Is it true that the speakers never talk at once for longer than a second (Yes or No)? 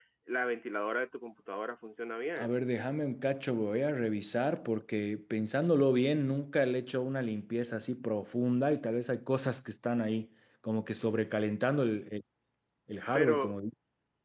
Yes